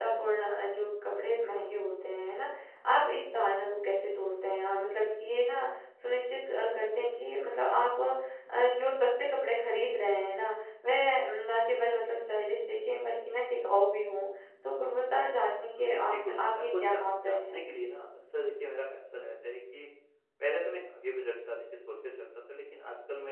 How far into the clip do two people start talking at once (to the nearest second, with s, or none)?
16 s